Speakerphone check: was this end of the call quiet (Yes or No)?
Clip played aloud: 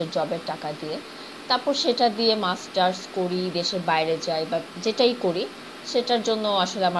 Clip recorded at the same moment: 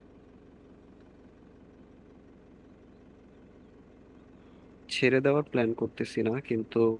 No